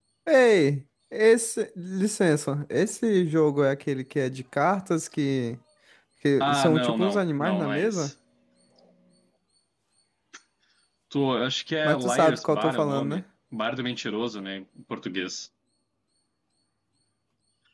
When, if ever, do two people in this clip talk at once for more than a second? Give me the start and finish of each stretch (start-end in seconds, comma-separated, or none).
6.4-8.1, 11.8-13.2